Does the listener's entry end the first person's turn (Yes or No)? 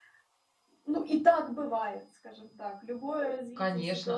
Yes